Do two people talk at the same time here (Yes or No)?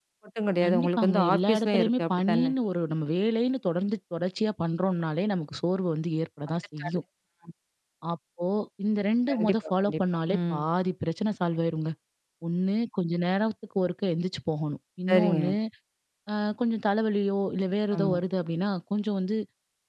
Yes